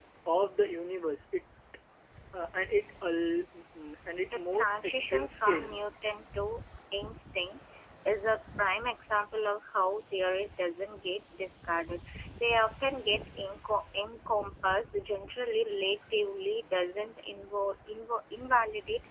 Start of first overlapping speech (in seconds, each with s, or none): 4.2 s